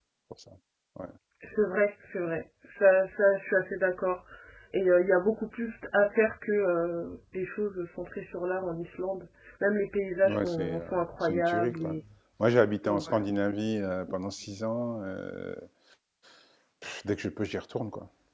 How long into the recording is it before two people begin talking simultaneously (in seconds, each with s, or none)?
10.2 s